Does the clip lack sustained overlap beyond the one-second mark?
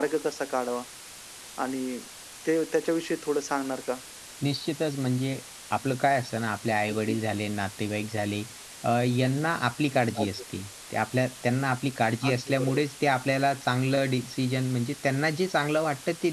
Yes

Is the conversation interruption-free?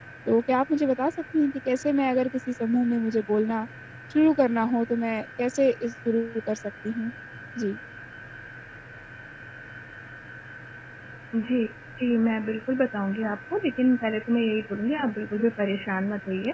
Yes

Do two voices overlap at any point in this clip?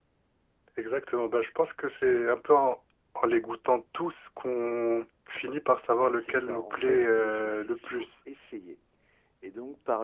Yes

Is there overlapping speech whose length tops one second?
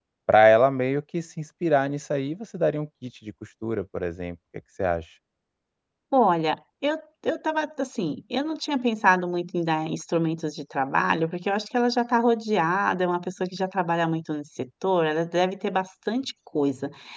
No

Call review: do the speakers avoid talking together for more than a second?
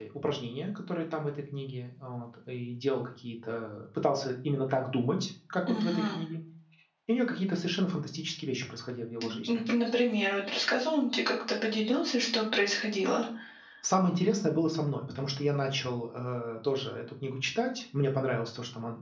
Yes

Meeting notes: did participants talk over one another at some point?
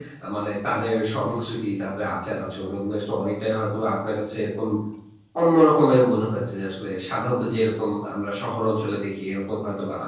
No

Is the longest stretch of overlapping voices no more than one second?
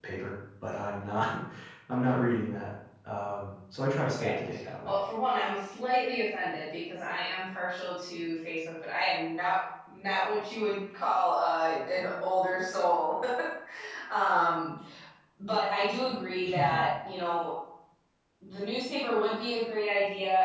Yes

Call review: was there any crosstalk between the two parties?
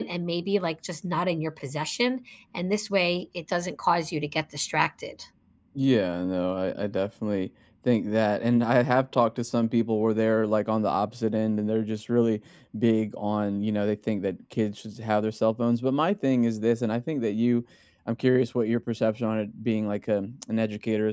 No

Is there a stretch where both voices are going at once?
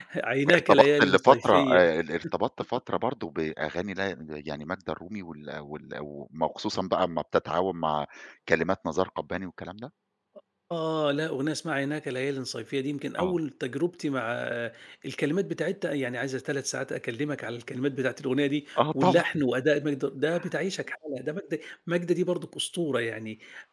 Yes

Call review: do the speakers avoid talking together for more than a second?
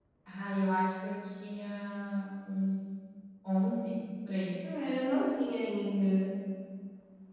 Yes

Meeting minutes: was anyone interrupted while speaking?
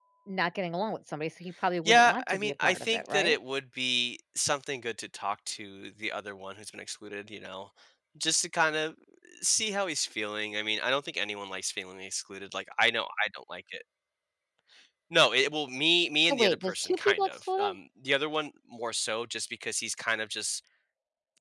Yes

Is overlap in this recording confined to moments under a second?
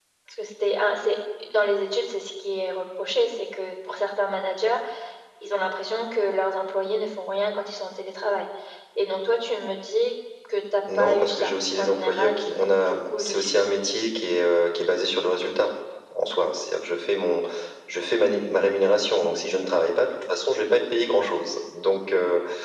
No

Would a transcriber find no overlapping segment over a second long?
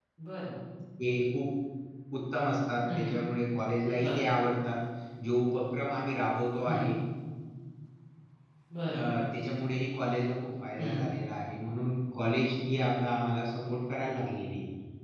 Yes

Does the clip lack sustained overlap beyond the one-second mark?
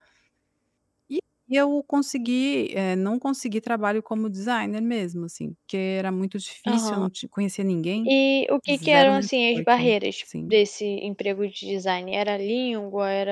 No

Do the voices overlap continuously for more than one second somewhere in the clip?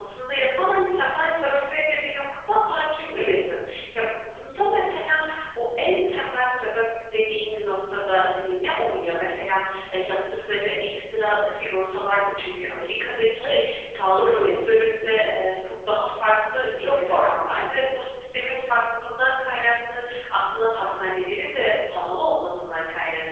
Yes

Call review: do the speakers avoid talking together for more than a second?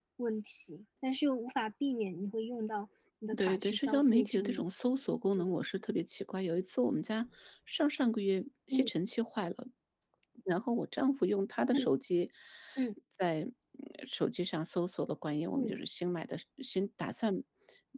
No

